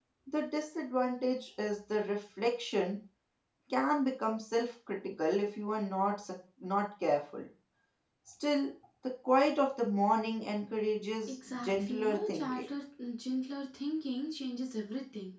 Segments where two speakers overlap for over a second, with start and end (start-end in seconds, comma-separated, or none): 11.3-12.7